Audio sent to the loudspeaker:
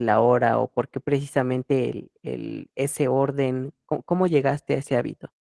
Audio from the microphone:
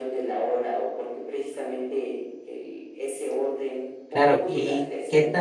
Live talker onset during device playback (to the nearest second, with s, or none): 4 s